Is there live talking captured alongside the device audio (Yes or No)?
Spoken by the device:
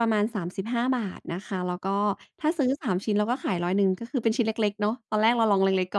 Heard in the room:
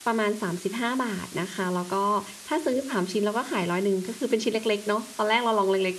No